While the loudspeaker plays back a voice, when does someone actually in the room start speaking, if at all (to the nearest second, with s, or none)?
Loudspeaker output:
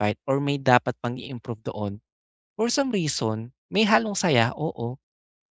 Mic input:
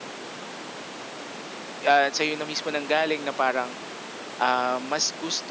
2 s